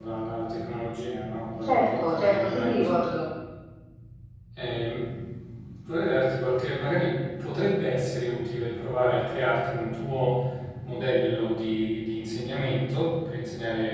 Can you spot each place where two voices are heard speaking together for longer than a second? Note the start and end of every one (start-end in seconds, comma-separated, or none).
1.6-3.0